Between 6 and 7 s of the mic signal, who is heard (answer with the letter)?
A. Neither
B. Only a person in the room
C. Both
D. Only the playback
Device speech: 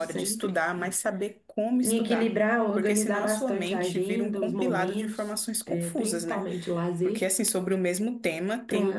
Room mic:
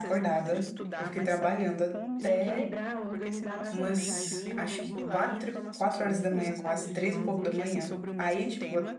C